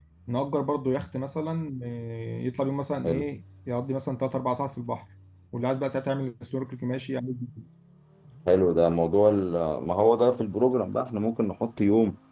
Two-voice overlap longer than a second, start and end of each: none

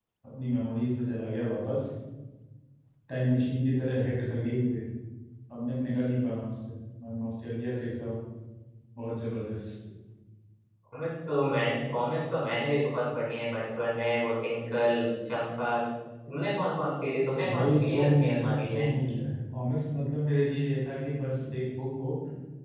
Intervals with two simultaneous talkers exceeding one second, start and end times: 17.4-18.8

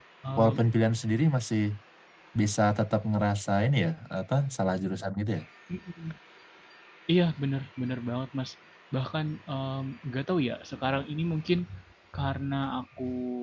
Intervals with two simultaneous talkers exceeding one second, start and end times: none

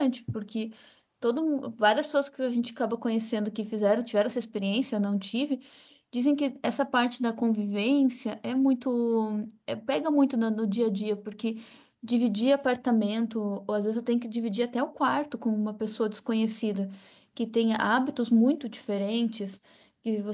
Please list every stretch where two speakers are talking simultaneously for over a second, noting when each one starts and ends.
none

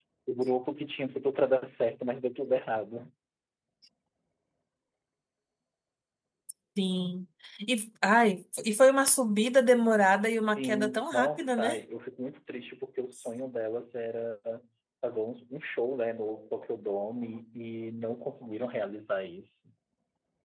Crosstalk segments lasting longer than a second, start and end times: 10.2-11.8

